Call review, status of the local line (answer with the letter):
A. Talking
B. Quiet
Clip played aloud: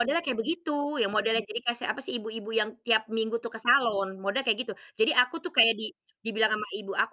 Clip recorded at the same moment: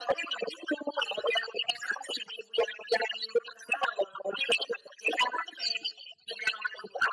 B